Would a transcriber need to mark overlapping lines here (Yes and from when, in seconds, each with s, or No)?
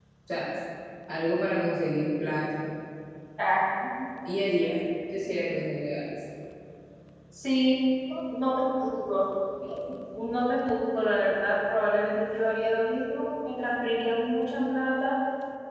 No